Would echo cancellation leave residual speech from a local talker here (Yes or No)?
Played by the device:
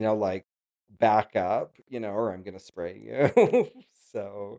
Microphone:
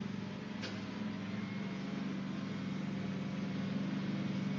No